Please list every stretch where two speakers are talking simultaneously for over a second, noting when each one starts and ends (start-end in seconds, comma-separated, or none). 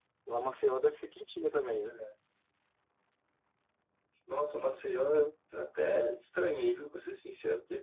none